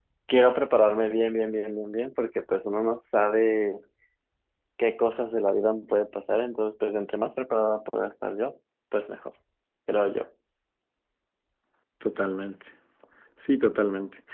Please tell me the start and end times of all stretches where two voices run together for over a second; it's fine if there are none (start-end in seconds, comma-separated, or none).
none